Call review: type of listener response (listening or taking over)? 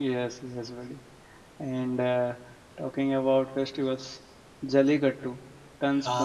listening